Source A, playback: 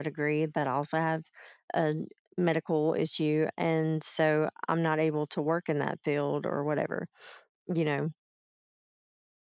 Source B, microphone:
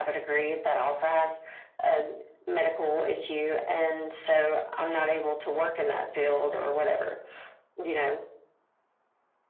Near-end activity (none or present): none